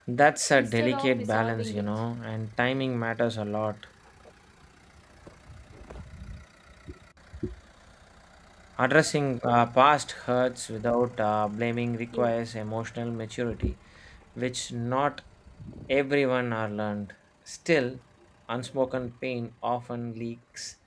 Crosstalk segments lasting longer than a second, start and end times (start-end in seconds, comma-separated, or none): 0.5-1.9